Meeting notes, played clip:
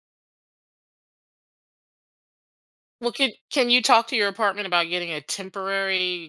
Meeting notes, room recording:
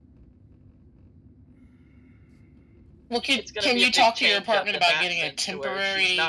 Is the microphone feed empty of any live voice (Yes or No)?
No